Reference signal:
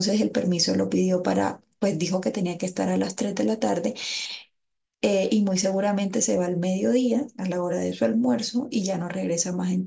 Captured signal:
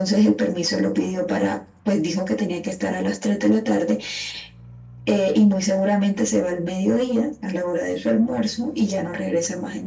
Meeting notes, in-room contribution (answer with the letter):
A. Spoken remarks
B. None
B